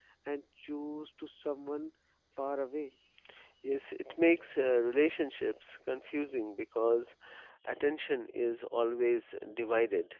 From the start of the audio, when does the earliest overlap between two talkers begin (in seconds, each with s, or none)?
none